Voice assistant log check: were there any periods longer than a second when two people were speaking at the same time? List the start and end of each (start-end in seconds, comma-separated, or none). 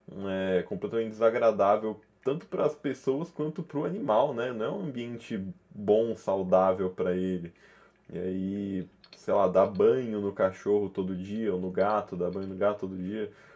none